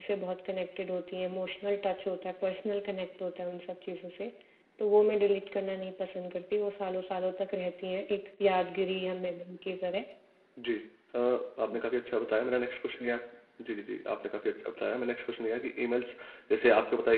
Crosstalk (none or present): none